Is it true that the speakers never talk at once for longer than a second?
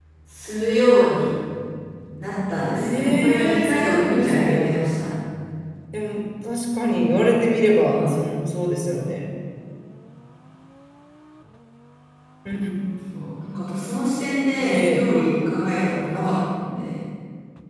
No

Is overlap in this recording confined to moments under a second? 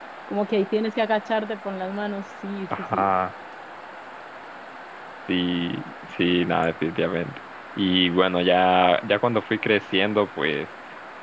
Yes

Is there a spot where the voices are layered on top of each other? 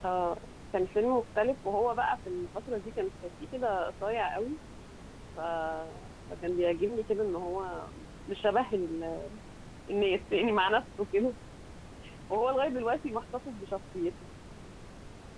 No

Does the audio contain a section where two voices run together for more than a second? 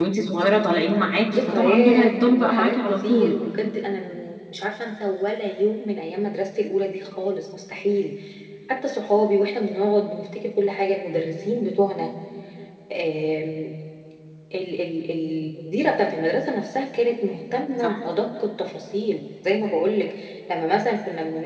Yes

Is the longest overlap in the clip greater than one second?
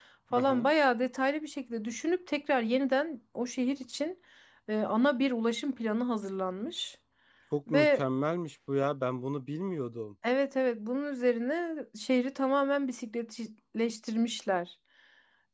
No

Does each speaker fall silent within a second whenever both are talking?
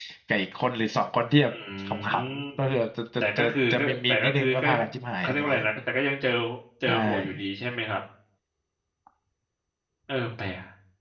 No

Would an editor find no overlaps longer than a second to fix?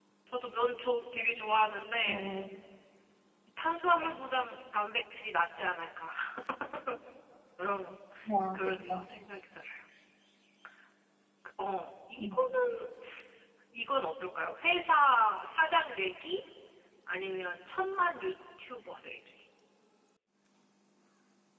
Yes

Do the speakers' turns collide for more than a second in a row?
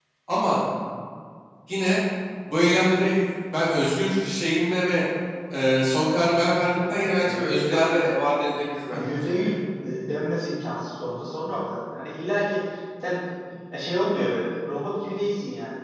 Yes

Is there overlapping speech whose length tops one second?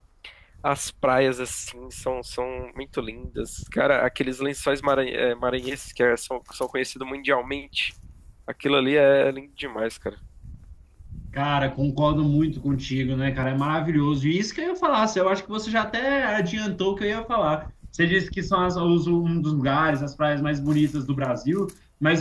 No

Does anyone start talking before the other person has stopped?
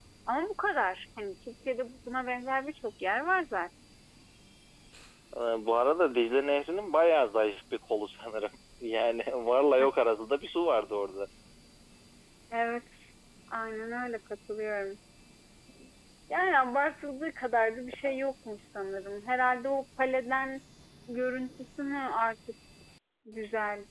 No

